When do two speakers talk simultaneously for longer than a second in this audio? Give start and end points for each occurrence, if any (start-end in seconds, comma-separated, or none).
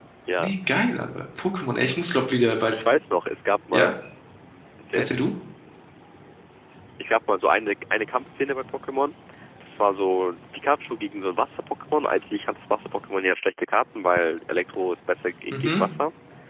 none